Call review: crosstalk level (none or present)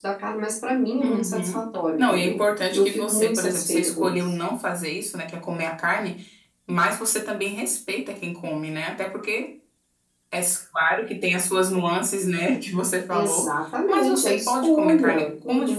present